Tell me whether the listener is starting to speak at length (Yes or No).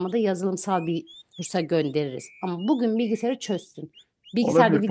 Yes